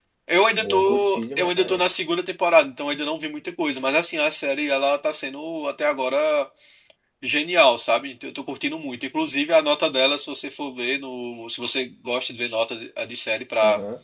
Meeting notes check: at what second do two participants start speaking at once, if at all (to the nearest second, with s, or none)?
1 s